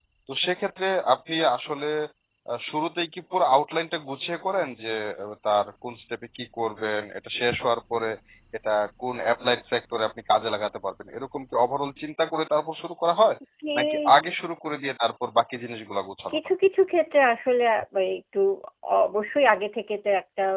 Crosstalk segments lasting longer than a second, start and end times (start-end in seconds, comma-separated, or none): none